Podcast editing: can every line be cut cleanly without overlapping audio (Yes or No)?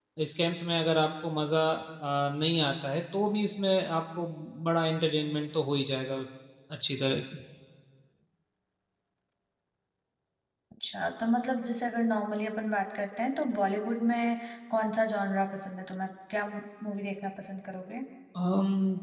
Yes